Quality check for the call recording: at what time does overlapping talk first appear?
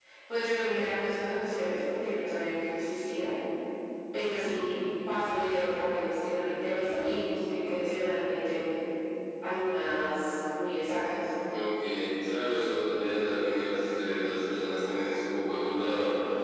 none

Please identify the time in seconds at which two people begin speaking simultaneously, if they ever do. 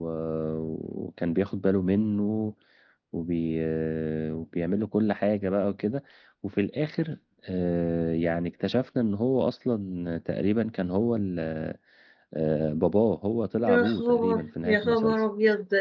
13.6 s

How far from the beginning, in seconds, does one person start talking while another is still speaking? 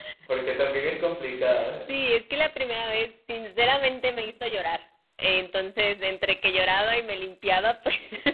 none

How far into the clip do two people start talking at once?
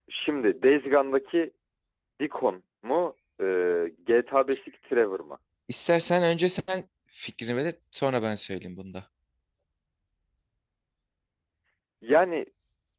none

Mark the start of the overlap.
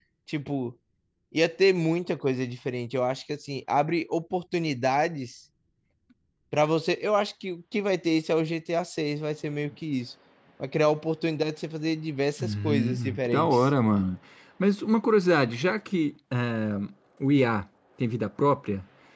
12.4 s

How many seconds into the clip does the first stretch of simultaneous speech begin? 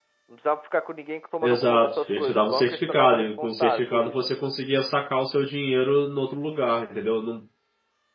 1.4 s

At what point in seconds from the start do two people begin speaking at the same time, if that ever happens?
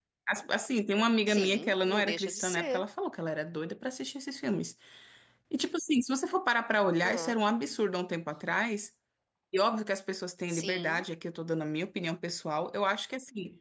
1.3 s

